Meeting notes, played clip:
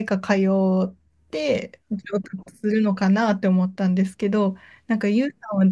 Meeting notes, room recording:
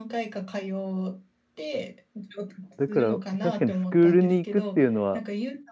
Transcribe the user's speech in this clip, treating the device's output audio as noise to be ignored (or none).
だから確かにスクールに行くっていうのは